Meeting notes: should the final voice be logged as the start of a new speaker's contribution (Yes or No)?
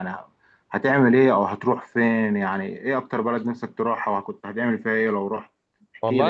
Yes